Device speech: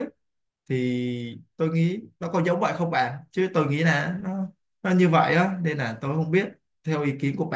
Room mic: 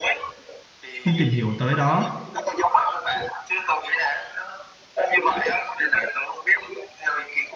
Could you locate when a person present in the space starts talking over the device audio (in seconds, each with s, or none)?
1.0 s